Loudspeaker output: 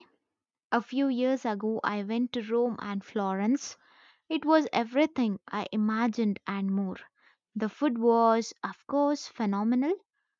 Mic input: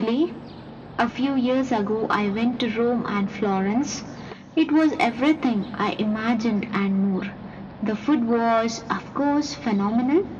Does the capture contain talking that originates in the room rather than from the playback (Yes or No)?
No